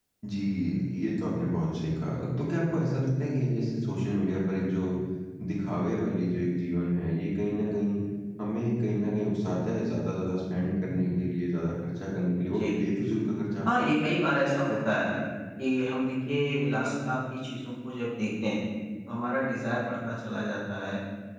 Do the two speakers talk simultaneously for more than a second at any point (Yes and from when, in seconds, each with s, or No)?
No